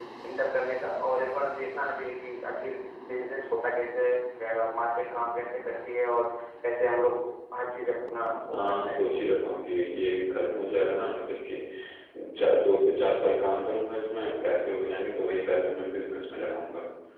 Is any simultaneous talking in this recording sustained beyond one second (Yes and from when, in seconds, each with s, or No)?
No